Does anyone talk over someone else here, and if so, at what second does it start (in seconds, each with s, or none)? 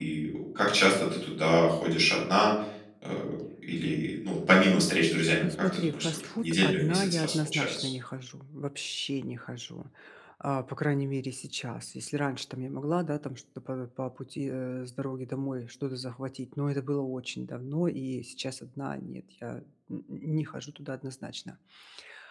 5.4 s